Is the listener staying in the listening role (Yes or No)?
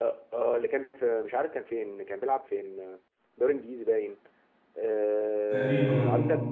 Yes